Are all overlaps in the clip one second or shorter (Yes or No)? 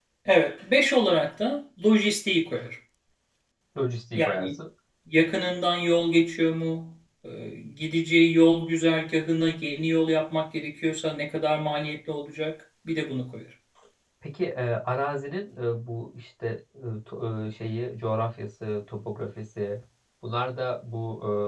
Yes